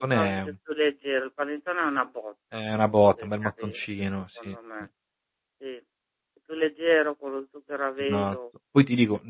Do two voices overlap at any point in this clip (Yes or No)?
Yes